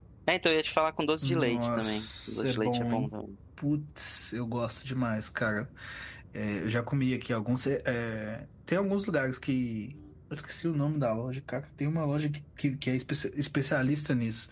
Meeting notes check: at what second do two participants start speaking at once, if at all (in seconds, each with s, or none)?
1.2 s